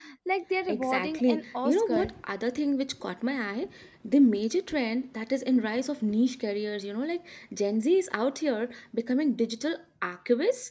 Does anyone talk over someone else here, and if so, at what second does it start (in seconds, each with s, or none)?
0.7 s